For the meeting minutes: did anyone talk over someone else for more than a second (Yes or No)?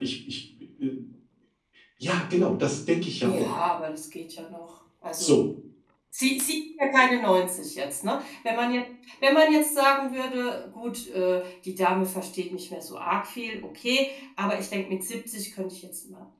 No